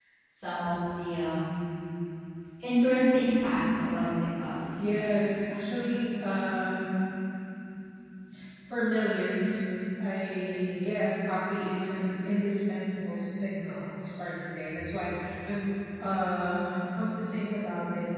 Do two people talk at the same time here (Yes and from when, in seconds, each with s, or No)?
No